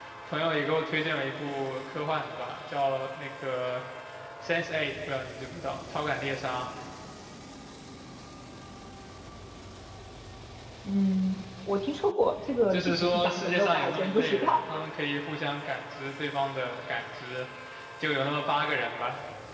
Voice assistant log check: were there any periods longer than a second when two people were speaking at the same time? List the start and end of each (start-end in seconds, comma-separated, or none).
12.7-14.6